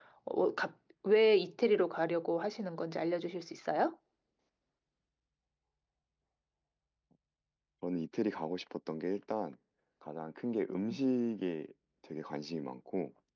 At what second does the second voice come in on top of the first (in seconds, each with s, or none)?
none